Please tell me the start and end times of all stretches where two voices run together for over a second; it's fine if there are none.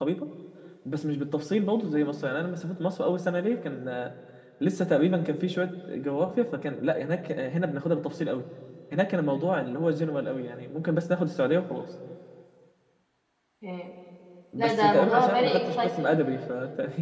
14.6-16.1

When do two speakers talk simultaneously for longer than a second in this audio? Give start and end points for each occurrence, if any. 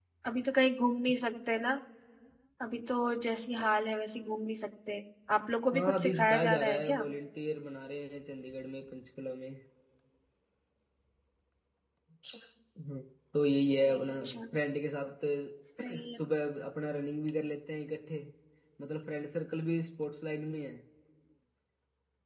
5.7-7.0

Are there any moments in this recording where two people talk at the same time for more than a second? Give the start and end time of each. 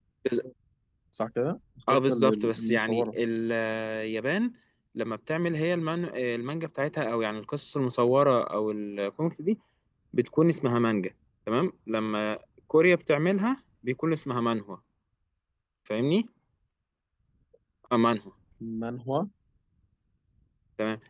1.9-3.2

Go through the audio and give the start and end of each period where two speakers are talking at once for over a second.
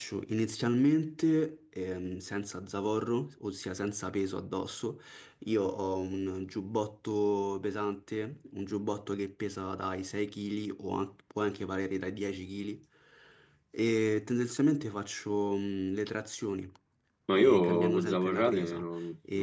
17.3-18.8

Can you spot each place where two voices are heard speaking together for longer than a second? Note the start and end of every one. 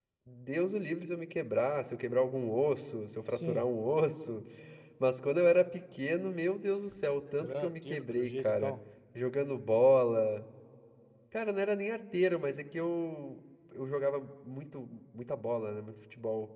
7.4-8.7

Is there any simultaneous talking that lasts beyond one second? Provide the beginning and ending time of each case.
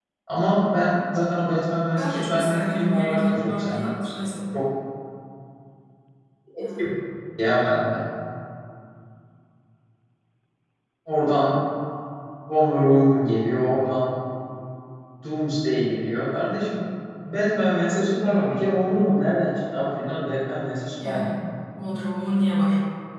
2.0-3.9

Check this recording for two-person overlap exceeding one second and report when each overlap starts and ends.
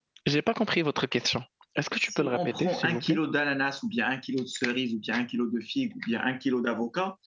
2.0-3.2

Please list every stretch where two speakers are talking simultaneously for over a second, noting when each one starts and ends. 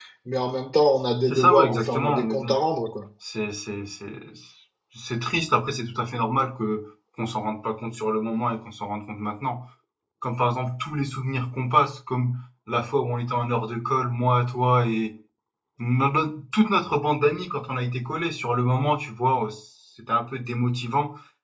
1.3-2.6

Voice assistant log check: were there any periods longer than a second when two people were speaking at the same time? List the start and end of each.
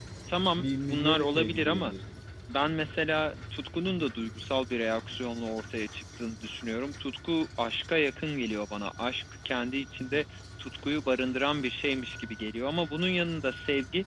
0.6-1.9

